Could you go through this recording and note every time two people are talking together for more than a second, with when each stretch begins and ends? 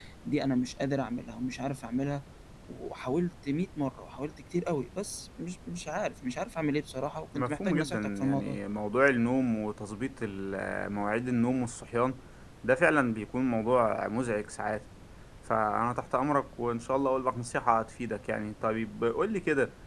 7.3-8.6

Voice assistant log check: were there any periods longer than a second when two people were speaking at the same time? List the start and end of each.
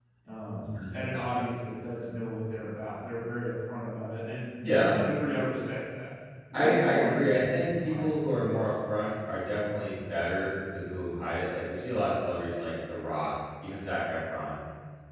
6.5-8.7

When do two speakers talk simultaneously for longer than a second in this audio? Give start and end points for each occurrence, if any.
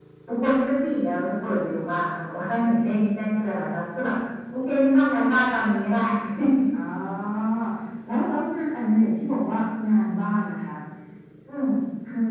none

